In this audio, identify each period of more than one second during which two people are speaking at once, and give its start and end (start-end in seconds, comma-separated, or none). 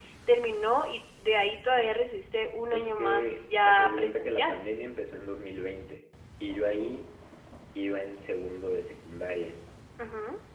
2.7-4.6